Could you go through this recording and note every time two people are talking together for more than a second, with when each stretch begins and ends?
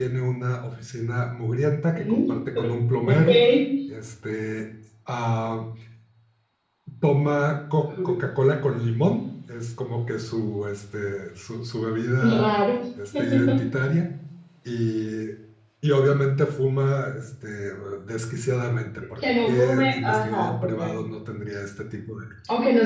19.2-21.0

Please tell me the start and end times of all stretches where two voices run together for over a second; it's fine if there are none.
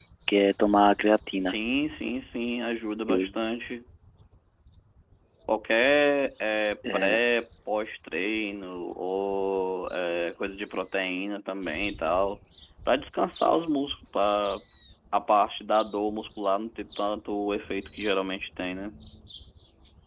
none

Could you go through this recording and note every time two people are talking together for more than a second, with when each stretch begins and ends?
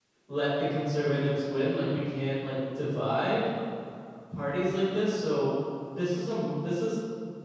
none

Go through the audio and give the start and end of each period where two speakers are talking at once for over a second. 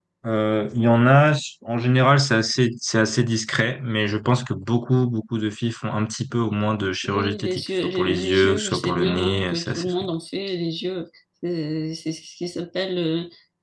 7.0-9.9

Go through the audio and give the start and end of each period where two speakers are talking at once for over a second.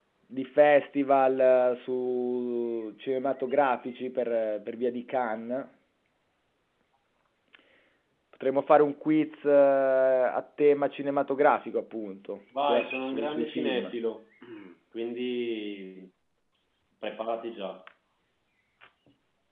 12.7-13.9

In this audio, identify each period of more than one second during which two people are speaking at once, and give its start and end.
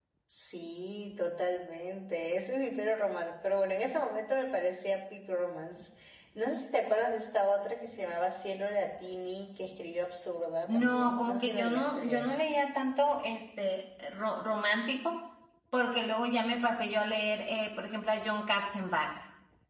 10.7-12.3

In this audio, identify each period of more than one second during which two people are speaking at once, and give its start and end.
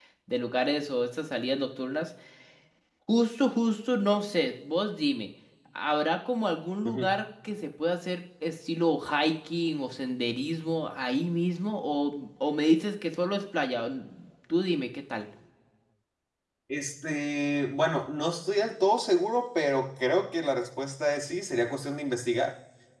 none

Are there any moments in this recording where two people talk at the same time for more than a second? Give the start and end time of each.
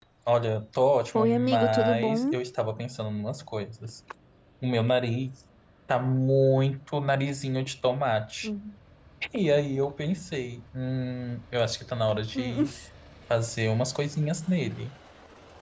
1.1-2.4

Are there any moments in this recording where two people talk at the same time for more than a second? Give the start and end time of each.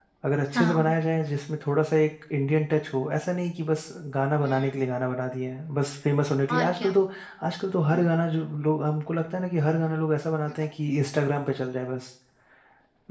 none

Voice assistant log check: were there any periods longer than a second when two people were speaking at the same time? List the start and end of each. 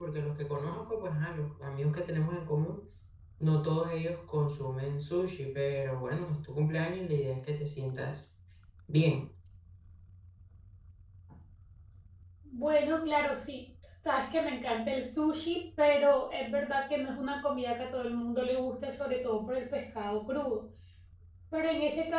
none

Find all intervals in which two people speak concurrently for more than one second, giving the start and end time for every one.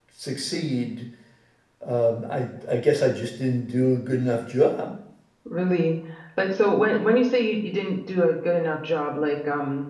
none

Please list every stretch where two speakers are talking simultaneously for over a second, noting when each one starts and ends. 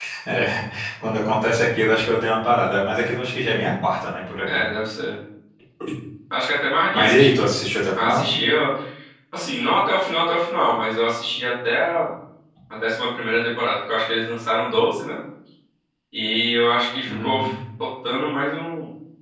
none

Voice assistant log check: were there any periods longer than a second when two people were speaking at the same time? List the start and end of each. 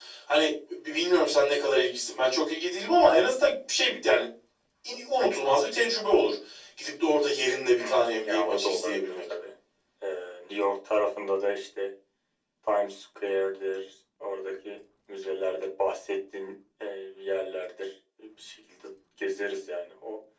7.8-9.1

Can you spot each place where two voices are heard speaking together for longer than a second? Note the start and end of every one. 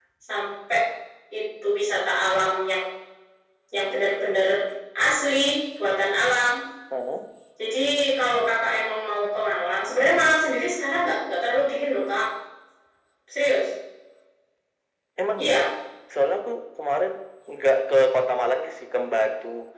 none

